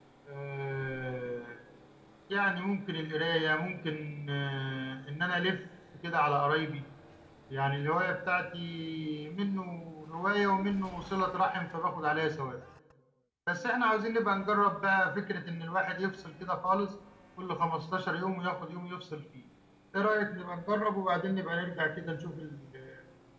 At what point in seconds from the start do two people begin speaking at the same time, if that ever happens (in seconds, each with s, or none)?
none